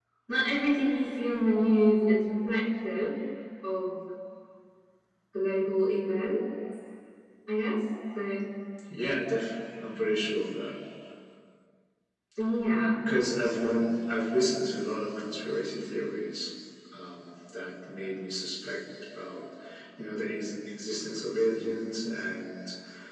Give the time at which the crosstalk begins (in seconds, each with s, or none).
none